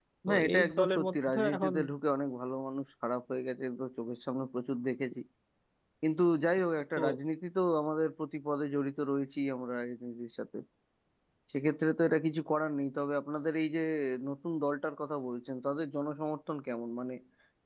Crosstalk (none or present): present